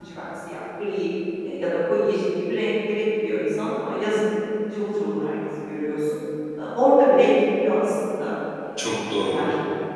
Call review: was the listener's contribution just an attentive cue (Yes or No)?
No